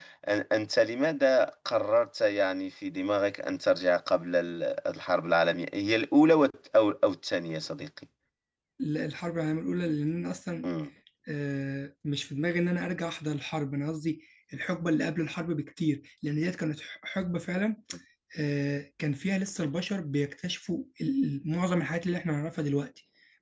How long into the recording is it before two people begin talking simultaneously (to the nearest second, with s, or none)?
none